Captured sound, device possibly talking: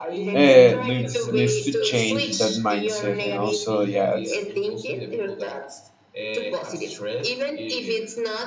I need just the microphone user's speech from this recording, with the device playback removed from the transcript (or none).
uh, needs needs to change that mindset, and also yeah, it's,